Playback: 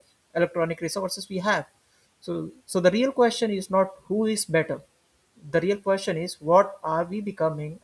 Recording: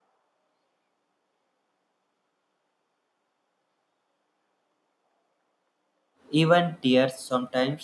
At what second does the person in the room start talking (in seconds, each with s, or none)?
6.3 s